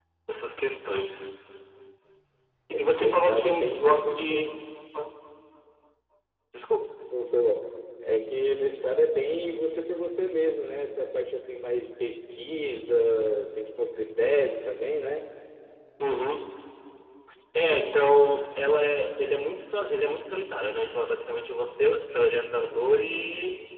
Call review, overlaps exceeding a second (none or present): present